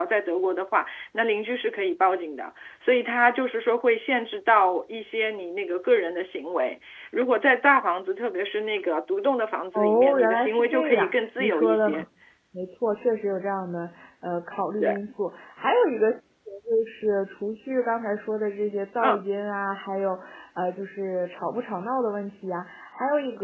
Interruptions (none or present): present